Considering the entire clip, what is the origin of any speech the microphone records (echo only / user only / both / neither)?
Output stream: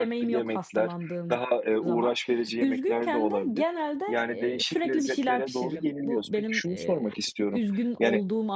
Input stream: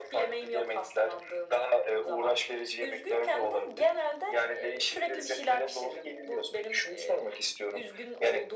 echo only